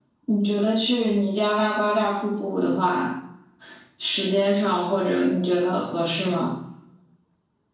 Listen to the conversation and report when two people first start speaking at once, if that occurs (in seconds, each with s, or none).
none